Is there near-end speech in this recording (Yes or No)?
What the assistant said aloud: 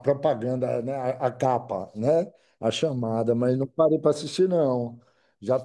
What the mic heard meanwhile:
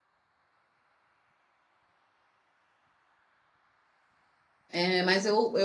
Yes